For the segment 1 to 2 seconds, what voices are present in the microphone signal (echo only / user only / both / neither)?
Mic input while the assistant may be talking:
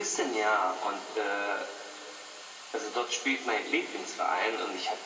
echo only